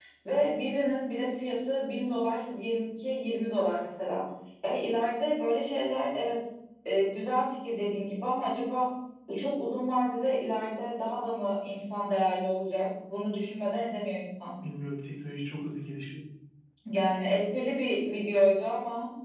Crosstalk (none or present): none